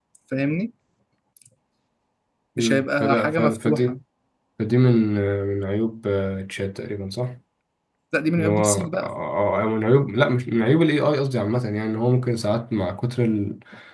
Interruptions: present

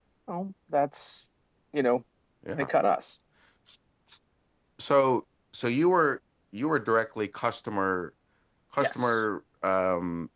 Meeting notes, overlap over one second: none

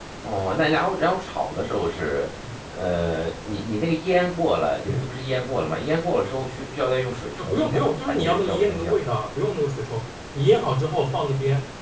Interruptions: present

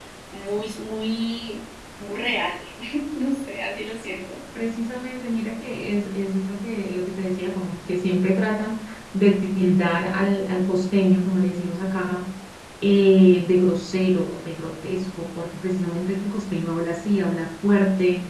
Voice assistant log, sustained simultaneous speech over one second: none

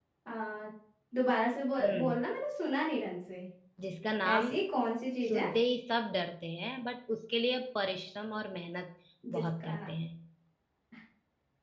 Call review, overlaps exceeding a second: none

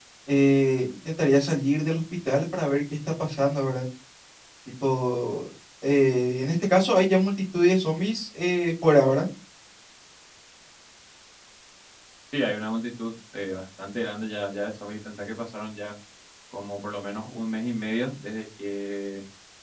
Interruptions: none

